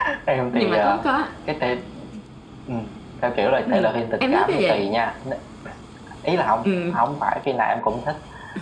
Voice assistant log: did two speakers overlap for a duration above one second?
Yes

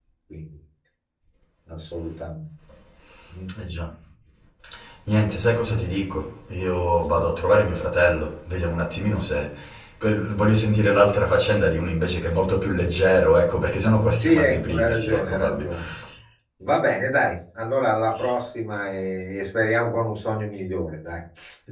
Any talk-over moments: Yes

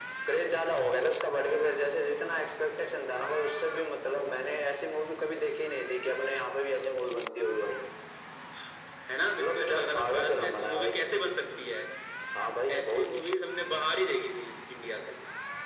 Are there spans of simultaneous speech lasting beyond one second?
Yes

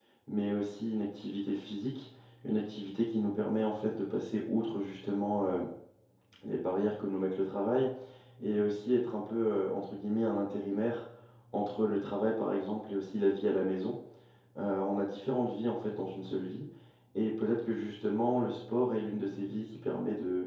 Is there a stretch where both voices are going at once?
No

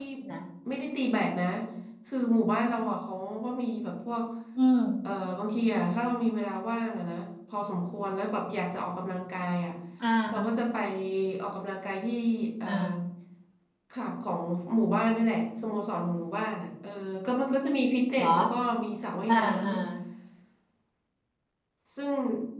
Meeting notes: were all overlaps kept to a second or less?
Yes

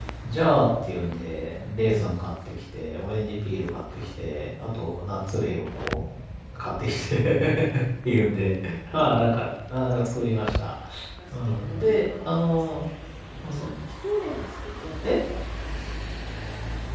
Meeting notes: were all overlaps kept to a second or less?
No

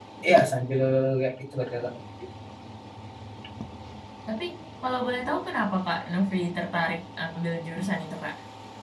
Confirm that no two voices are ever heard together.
Yes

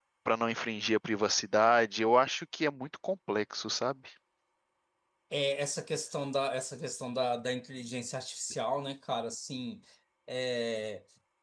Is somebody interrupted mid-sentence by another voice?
No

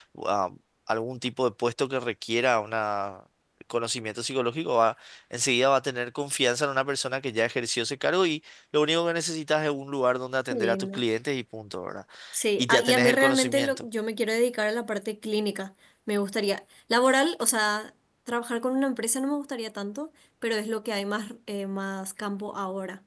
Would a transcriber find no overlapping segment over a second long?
No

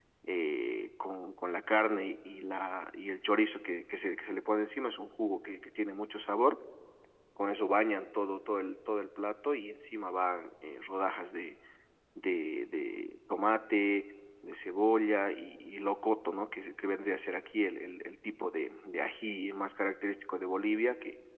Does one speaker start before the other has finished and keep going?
No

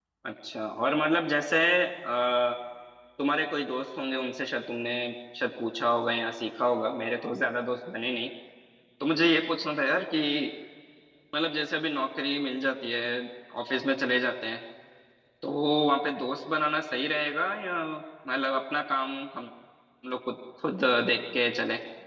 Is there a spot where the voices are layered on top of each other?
No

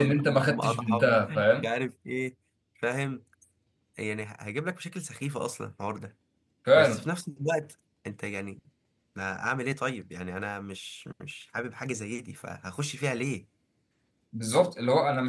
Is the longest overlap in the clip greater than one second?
Yes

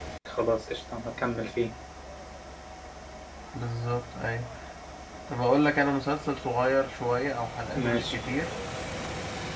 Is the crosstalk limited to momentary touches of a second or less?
Yes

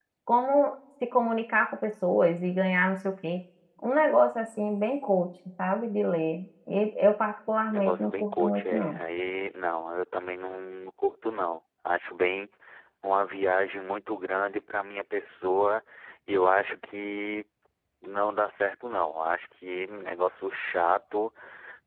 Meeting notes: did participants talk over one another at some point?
Yes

